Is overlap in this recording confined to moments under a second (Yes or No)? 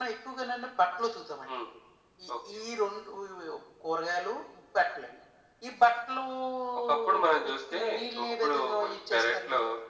No